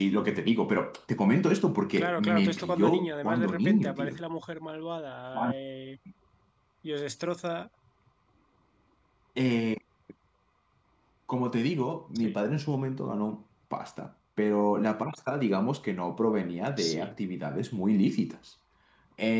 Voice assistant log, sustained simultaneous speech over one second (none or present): present